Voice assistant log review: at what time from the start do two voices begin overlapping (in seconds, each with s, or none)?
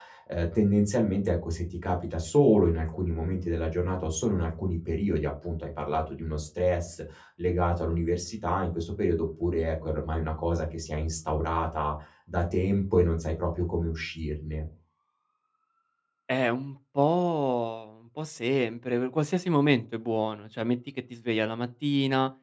none